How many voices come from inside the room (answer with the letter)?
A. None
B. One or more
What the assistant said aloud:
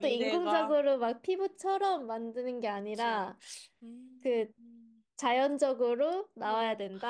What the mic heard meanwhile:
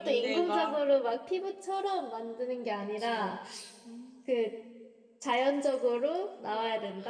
A